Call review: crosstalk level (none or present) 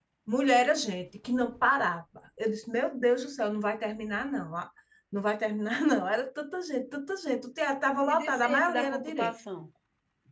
present